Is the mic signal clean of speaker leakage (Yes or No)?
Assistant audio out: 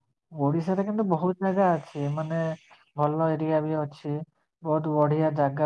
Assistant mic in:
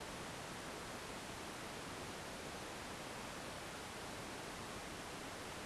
Yes